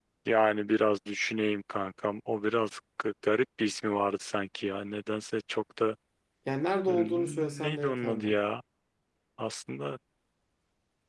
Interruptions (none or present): present